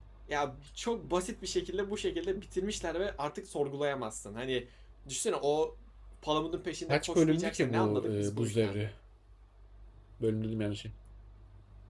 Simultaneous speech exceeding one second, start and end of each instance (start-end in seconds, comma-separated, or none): 6.9-8.8